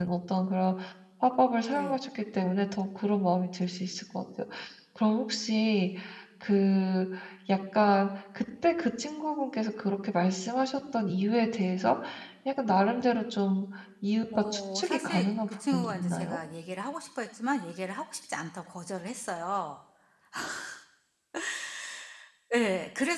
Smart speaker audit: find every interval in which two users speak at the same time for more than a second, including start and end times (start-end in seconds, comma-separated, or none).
14.3-16.4